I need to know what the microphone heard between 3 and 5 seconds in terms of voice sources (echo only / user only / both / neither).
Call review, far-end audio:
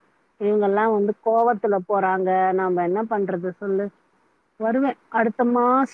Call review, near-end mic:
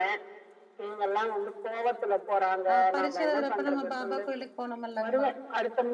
both